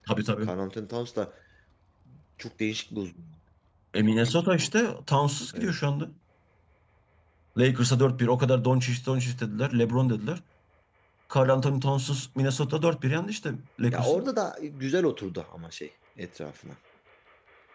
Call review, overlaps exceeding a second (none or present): none